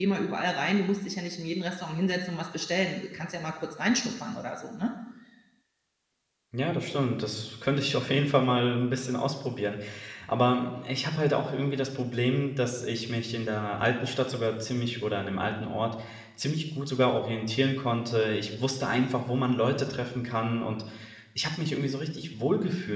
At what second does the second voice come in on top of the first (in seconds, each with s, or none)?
none